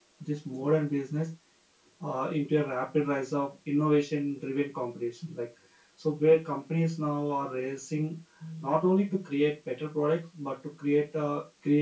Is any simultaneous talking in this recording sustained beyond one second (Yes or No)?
No